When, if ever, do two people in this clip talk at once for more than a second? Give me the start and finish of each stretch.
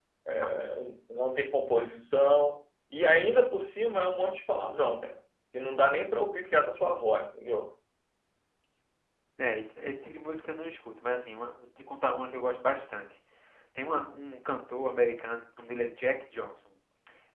none

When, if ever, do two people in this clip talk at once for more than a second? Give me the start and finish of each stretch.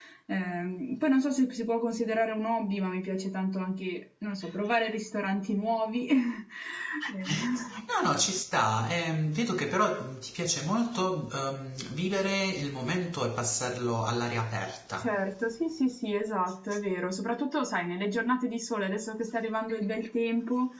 none

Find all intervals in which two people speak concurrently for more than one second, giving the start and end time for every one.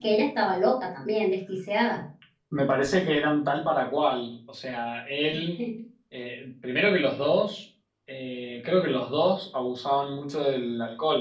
none

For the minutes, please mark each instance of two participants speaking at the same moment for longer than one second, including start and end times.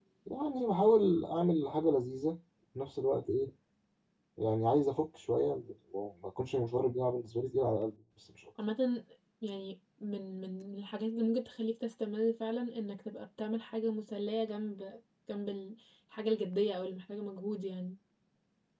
none

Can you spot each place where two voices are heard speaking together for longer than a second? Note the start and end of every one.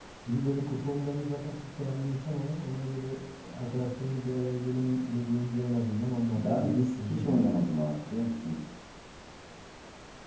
6.3-7.6

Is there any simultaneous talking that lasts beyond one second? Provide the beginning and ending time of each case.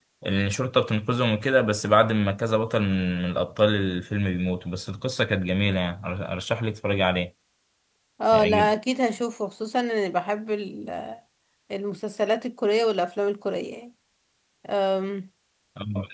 none

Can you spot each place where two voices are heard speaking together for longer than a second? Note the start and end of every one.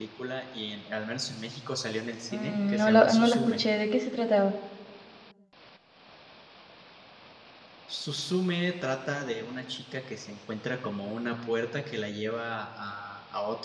2.3-3.6

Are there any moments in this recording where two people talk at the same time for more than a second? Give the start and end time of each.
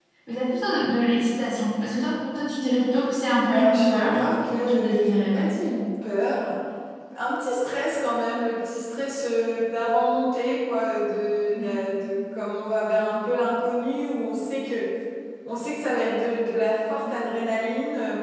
3.5-5.4

